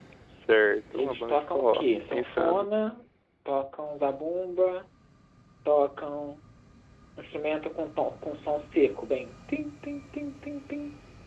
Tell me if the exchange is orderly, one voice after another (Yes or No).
No